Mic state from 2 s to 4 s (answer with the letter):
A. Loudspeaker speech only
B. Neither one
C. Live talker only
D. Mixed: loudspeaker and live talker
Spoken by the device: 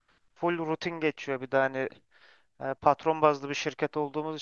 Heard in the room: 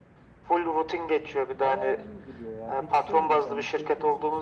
D